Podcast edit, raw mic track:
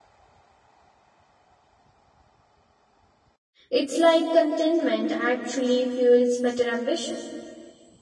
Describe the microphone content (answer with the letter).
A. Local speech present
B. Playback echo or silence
A